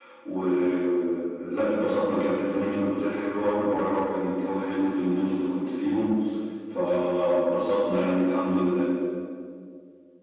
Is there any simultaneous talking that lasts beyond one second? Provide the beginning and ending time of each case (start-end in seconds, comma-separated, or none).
none